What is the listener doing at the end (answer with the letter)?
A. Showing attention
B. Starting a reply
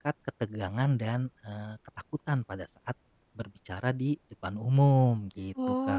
B